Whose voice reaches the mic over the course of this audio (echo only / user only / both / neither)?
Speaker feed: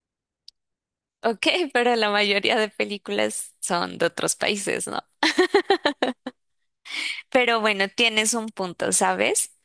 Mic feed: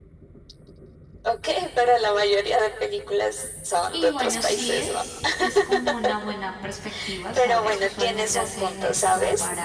both